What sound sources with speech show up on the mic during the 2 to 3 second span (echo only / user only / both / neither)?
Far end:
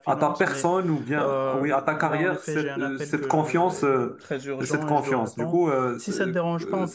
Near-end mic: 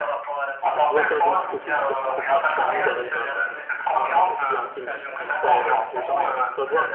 both